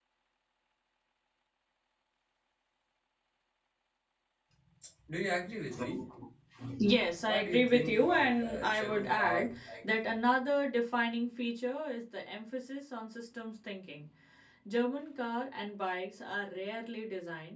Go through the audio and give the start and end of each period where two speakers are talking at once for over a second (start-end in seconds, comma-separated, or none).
7.3-9.8